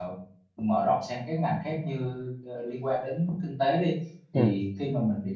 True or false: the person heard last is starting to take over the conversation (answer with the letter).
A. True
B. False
B